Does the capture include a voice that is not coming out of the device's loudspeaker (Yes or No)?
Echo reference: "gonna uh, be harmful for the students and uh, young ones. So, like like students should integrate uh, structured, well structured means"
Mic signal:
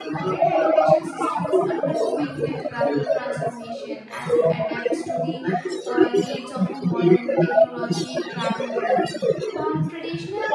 Yes